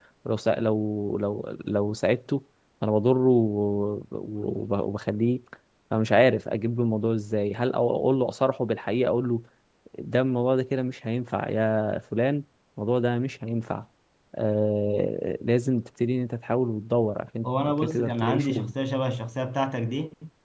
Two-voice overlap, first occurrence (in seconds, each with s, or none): 17.4 s